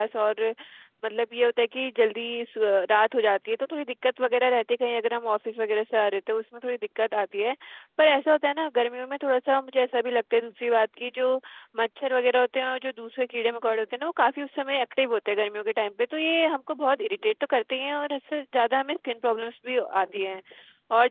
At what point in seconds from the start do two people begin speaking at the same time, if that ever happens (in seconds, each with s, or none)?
none